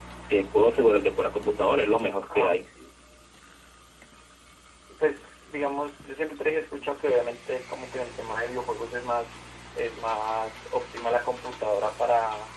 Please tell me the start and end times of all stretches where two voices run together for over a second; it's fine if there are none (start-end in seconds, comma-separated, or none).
none